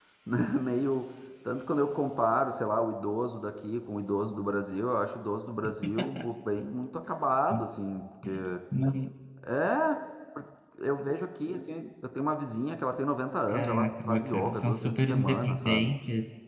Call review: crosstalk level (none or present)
present